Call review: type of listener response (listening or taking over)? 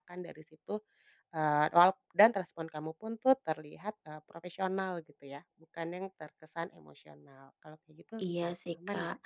taking over